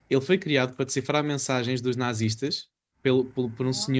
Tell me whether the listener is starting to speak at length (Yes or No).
No